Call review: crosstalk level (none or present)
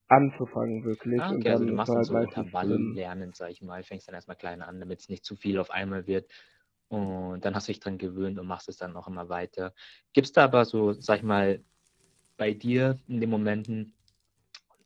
present